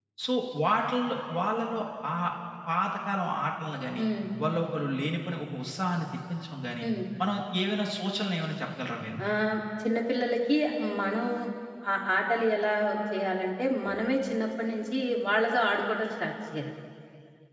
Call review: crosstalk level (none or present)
none